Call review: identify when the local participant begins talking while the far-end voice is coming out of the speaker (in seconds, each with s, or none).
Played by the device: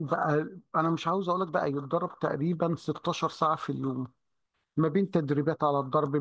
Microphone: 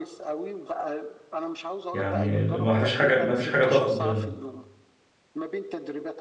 1.9 s